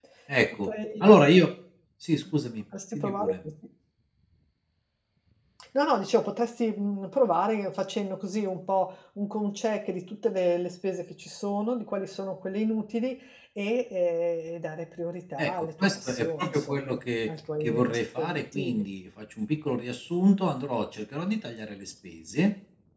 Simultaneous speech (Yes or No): Yes